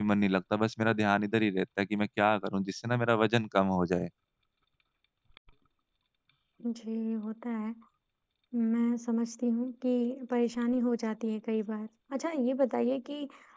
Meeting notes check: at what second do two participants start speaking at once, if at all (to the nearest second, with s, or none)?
none